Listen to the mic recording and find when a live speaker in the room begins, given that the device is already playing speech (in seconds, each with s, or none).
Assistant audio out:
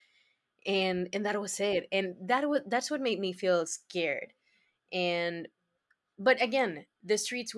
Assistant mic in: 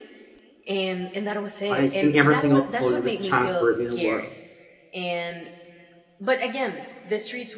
1.7 s